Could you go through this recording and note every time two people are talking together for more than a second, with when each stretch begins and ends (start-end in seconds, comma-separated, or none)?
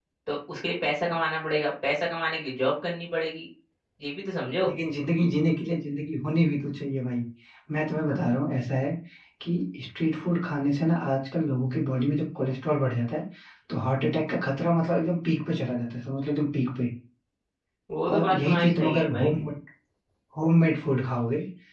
18.1-19.3